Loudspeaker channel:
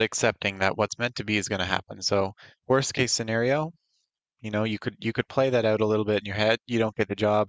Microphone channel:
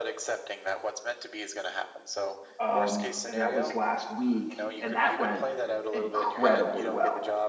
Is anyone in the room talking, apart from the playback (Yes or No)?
Yes